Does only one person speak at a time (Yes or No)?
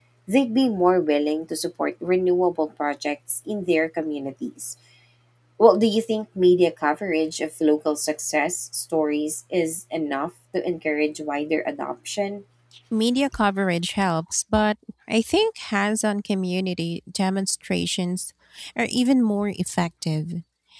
Yes